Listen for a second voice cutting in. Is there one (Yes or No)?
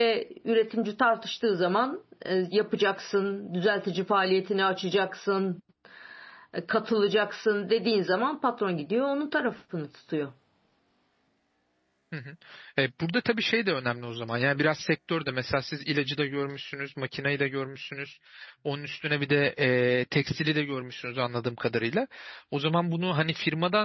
No